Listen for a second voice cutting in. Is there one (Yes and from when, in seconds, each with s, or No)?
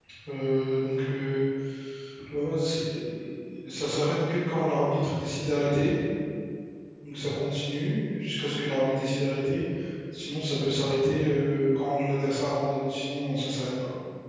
No